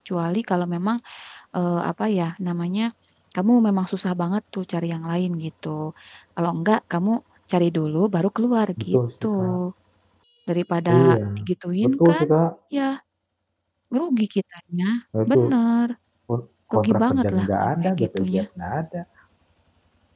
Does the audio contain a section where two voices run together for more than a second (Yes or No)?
Yes